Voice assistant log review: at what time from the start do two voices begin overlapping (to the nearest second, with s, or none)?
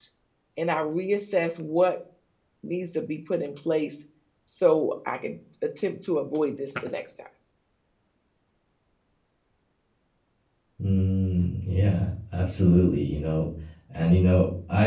none